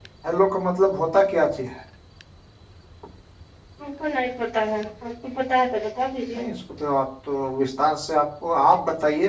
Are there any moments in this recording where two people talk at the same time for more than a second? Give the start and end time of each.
none

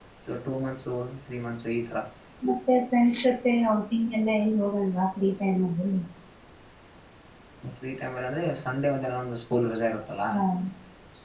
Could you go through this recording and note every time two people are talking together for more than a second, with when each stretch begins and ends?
none

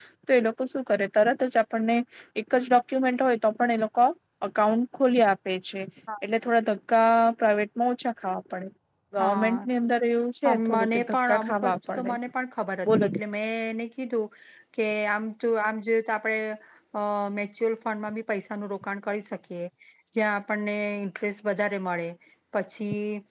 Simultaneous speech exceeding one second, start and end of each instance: 10.5-12.2

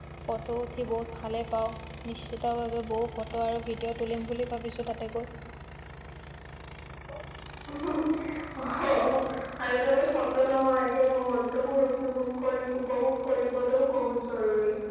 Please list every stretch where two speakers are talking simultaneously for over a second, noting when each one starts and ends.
none

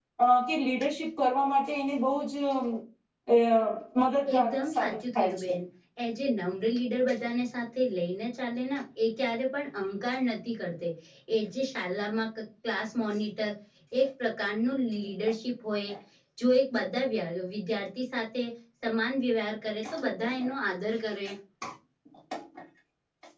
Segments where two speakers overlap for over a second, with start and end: 4.3-5.5

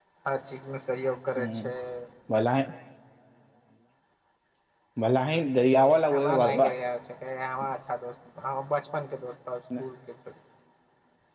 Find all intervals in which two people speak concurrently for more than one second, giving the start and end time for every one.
none

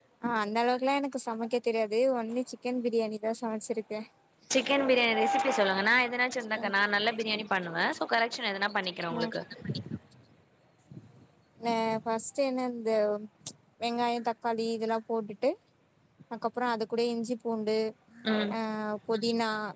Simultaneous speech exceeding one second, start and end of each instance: none

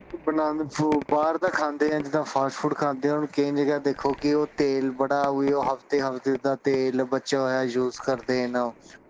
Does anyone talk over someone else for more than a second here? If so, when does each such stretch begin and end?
none

